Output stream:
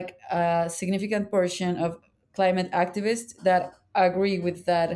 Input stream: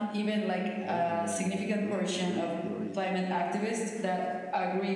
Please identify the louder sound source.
echo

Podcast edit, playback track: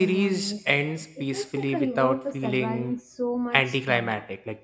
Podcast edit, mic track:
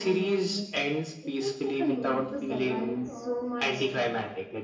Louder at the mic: echo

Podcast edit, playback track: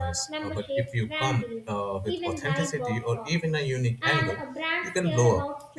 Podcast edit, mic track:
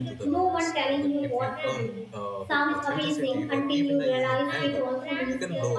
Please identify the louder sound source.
user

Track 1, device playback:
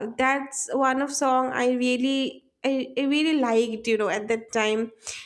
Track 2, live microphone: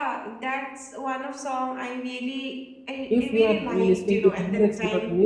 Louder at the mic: user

